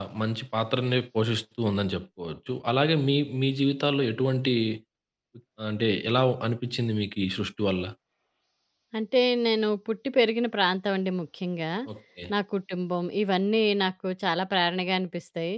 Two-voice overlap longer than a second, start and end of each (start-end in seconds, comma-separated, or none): none